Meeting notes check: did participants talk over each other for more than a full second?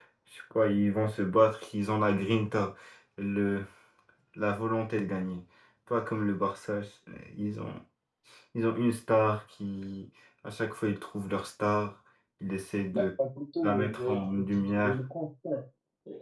Yes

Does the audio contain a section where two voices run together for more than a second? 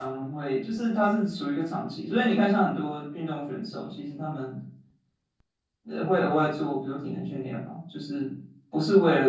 No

